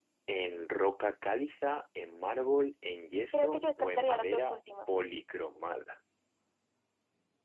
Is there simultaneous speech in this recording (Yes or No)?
Yes